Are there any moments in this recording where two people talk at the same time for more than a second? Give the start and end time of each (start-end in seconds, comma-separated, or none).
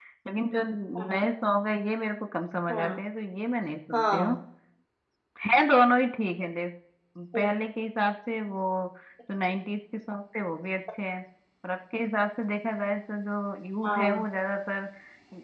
none